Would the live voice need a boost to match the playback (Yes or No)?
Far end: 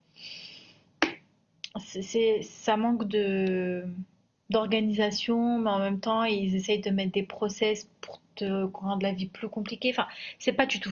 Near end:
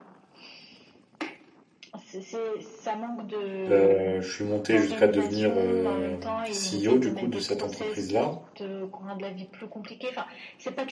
No